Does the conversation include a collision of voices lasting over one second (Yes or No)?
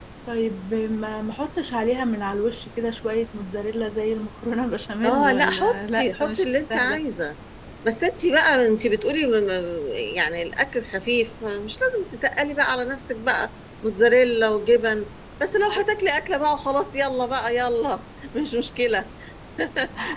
Yes